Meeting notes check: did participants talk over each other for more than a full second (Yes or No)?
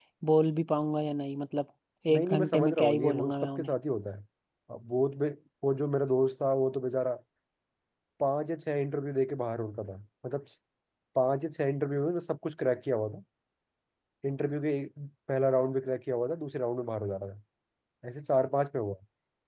Yes